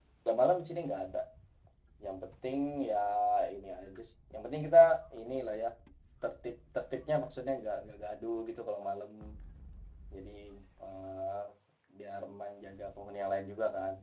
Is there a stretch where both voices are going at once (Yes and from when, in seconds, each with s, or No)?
No